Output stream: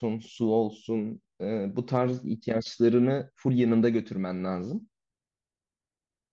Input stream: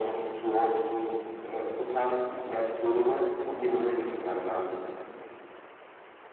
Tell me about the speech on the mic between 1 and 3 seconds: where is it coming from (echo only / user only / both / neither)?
echo only